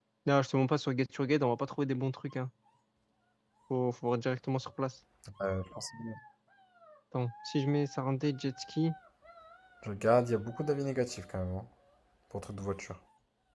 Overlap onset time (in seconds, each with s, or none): none